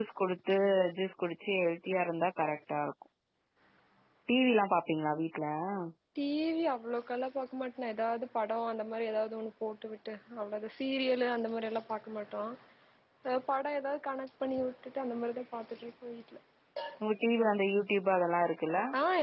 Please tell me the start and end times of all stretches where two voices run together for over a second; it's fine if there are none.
none

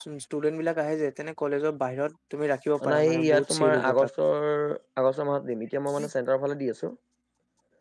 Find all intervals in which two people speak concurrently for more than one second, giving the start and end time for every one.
2.8-4.1

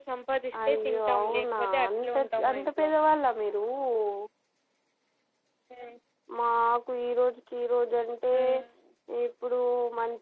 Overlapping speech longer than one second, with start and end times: 0.7-2.9

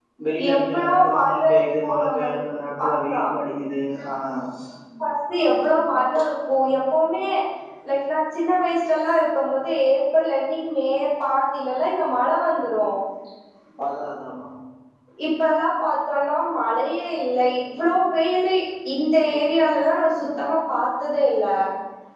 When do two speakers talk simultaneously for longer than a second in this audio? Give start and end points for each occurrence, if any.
0.6-2.4

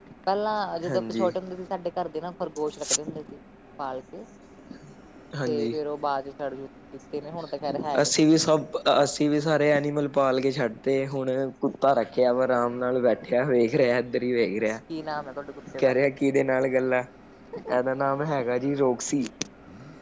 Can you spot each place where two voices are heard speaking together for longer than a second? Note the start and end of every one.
none

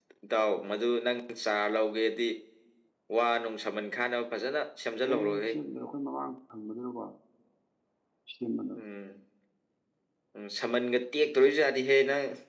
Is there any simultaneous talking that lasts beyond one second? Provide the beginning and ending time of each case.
none

